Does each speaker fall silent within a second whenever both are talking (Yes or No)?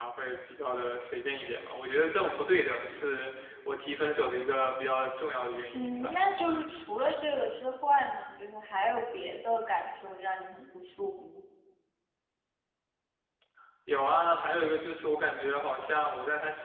Yes